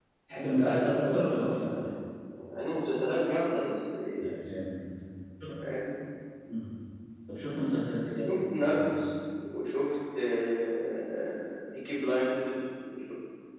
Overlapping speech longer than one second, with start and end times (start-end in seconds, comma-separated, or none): 0.6-1.8